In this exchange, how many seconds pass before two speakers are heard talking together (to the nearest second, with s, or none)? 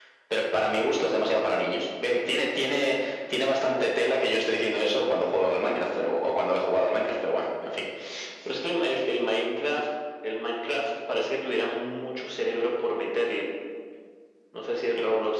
none